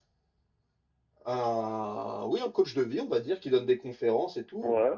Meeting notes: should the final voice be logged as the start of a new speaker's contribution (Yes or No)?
No